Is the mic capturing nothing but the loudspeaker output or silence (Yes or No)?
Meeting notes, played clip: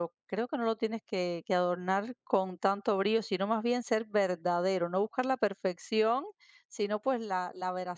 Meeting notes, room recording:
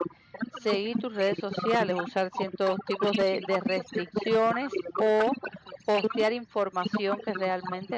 No